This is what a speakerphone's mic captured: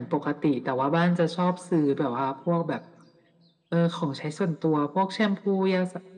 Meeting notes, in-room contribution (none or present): none